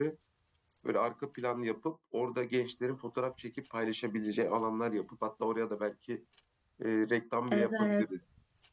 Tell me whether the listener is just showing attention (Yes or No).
No